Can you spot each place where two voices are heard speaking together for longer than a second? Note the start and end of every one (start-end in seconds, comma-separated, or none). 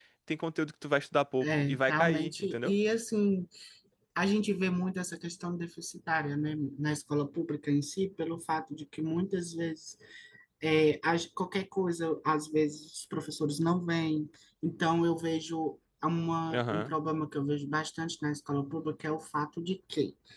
1.4-2.7